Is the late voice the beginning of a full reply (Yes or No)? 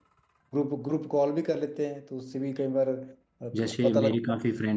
Yes